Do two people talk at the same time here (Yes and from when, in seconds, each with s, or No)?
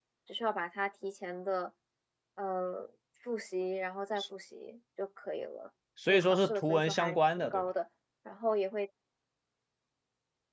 Yes, from 6.0 s